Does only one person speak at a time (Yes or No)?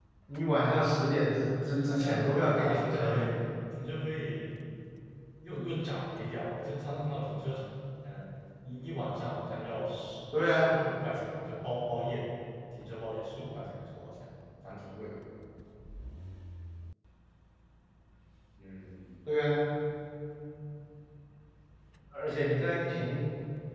No